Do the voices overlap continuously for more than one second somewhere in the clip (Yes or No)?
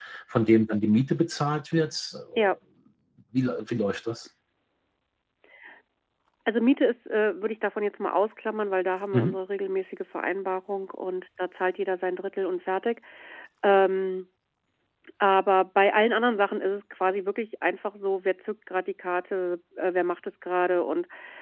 No